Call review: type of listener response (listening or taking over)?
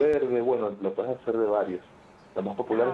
listening